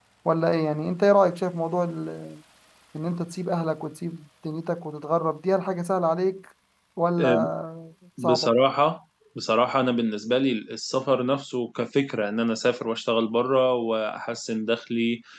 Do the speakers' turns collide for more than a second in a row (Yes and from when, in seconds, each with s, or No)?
No